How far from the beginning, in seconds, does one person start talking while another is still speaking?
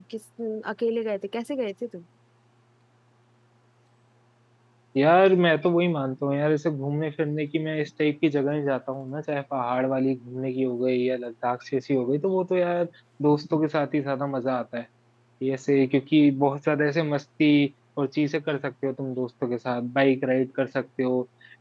none

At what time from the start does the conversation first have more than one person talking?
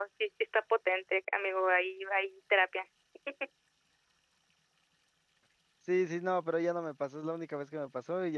none

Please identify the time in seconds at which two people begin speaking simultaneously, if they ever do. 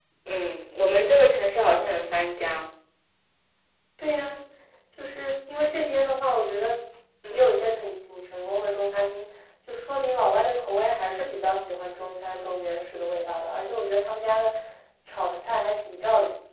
none

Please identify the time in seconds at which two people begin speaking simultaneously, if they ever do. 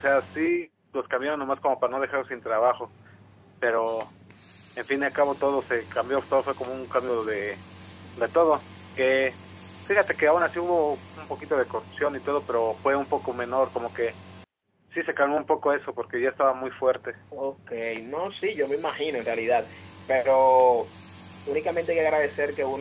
none

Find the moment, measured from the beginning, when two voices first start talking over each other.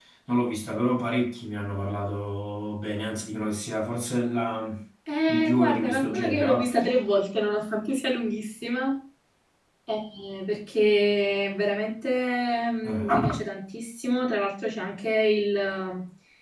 5.3 s

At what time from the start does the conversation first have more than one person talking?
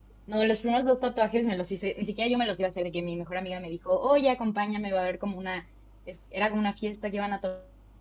none

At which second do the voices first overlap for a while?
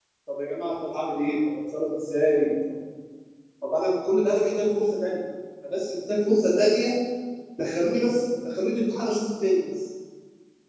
none

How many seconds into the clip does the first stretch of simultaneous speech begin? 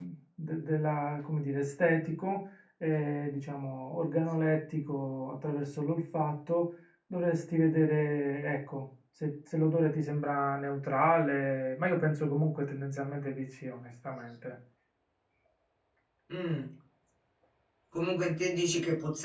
none

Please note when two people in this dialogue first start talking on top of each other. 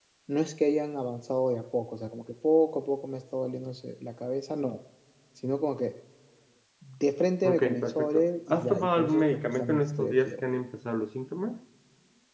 7.4 s

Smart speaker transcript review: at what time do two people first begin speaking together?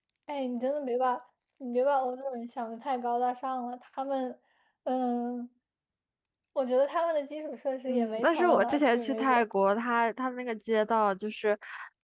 7.9 s

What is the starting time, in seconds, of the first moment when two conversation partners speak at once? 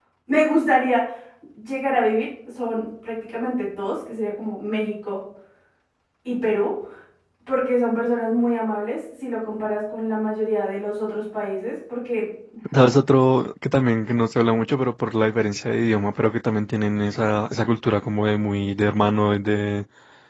none

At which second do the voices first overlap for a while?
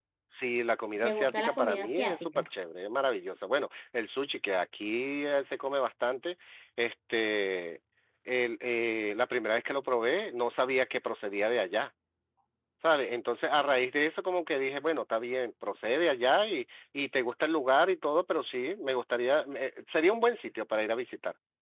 1.0 s

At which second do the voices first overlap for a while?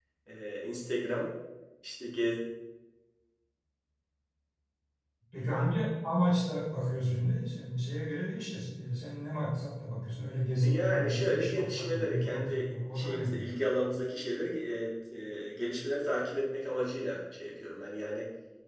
10.6 s

